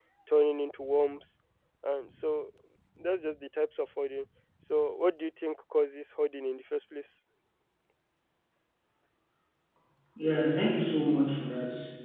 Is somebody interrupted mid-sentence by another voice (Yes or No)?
No